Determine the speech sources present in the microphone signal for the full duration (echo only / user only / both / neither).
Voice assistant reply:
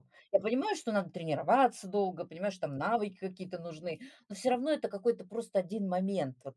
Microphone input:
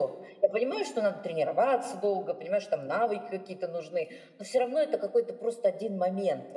echo only